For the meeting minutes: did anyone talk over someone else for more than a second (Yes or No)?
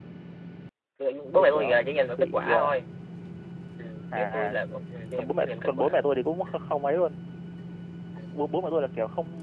Yes